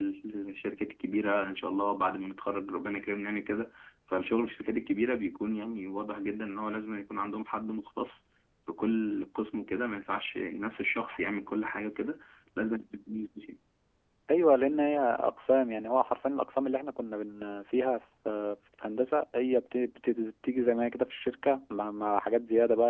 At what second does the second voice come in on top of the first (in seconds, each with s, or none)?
none